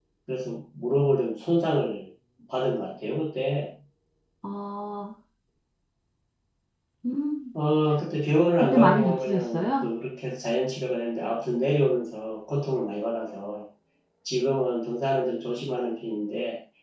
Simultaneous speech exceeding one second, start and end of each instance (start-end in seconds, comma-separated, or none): 8.6-9.9